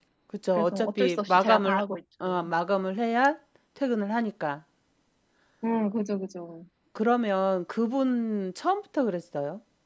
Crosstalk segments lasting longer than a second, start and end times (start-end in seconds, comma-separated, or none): 0.5-1.8